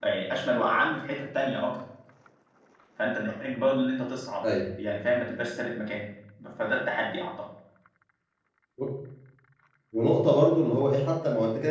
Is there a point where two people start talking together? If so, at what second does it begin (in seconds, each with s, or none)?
none